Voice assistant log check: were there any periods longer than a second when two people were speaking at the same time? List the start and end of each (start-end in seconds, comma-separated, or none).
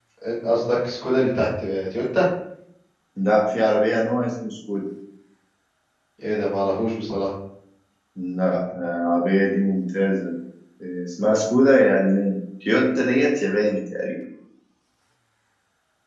none